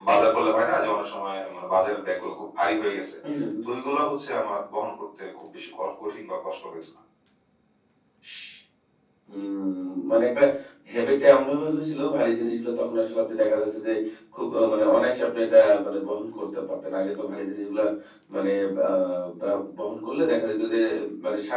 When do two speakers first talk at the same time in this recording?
none

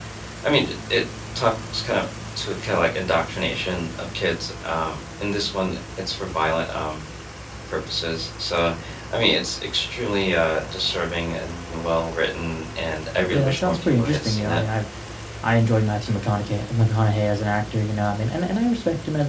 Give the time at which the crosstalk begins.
13.2 s

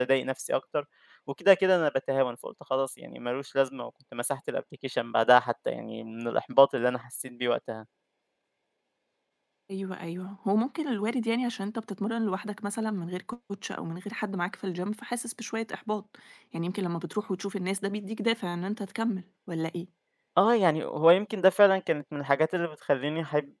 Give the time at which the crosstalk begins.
none

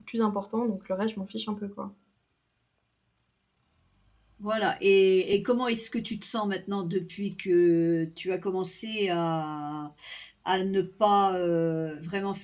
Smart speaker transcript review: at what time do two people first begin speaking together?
none

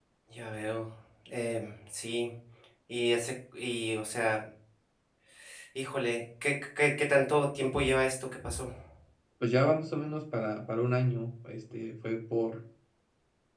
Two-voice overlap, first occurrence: none

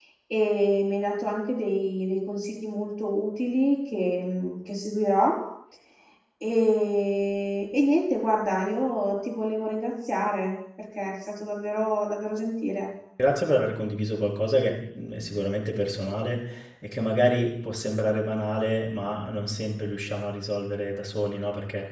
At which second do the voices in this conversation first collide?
none

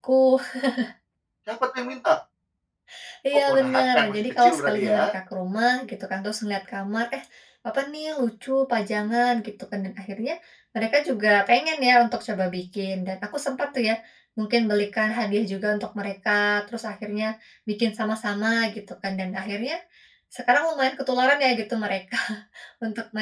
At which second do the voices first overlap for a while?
3.5 s

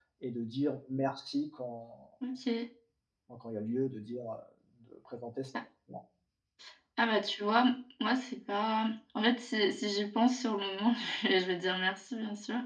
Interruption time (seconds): none

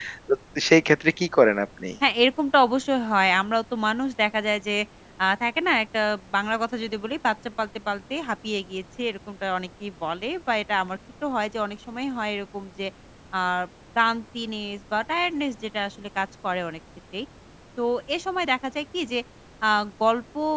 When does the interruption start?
none

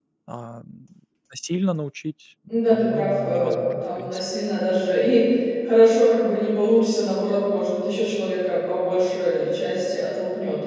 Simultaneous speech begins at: 2.5 s

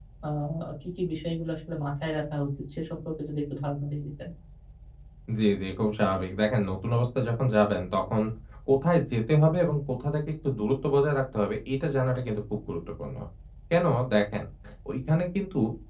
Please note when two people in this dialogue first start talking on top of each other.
none

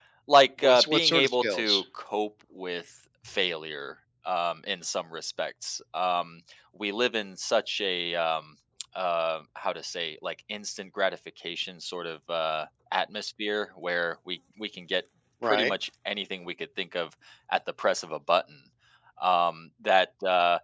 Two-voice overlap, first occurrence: 0.6 s

